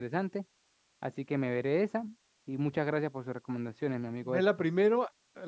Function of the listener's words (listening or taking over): taking over